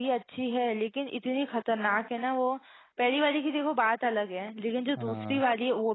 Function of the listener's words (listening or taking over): listening